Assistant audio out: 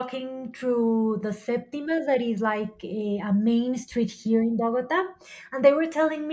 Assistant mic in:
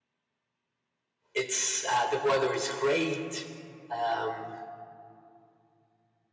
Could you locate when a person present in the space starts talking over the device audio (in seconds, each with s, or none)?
1.3 s